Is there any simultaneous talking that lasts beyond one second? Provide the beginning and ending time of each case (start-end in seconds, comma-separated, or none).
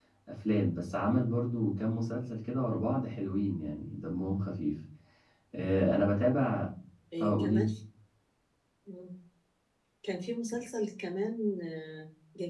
none